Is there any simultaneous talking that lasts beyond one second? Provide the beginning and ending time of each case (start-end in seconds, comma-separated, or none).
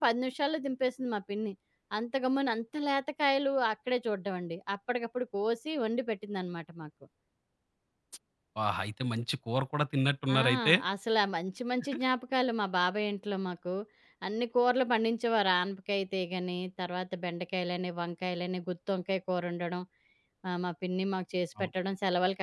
none